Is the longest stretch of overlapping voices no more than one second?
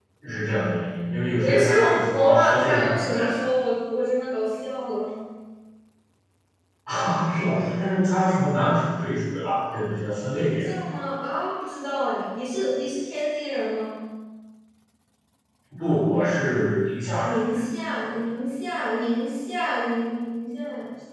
No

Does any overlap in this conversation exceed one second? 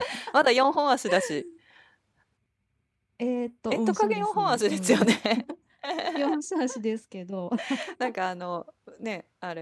Yes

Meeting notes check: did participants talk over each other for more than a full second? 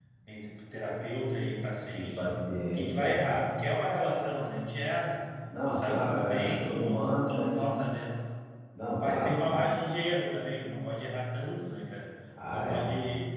Yes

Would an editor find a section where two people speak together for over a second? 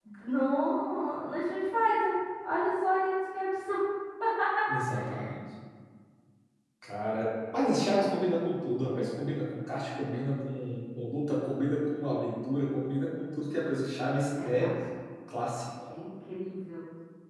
No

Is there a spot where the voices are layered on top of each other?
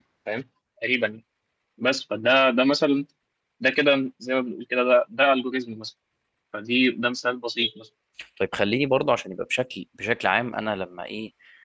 No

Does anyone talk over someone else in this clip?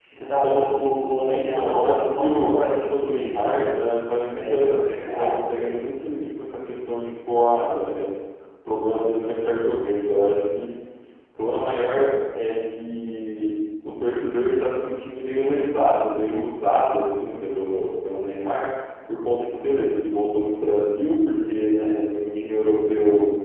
Yes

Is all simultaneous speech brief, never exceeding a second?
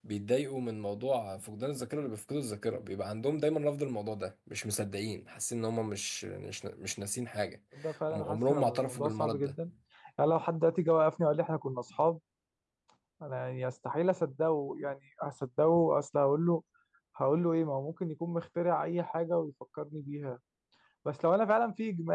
No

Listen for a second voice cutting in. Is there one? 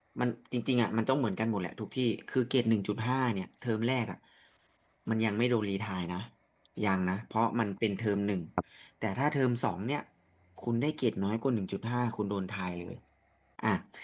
No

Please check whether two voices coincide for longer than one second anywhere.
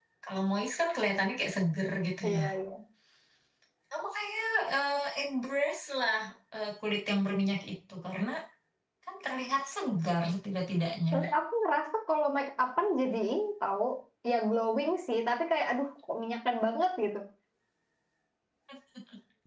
No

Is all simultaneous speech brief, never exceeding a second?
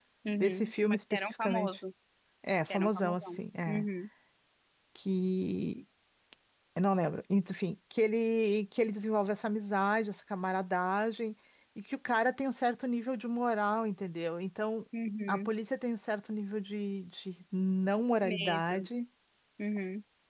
No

